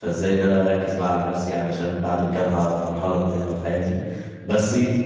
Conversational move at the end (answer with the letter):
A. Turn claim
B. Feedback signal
B